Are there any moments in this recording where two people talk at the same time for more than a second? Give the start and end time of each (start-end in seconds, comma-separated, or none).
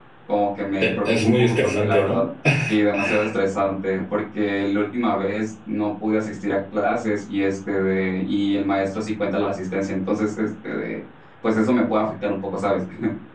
0.8-2.2